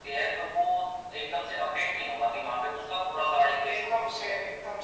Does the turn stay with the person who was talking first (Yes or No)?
No